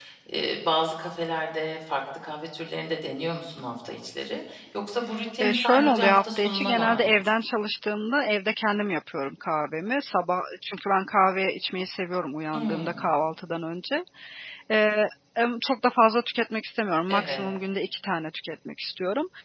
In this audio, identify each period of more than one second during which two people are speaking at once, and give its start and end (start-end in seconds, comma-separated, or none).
5.4-7.1